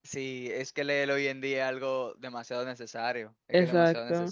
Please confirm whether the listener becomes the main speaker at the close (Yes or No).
Yes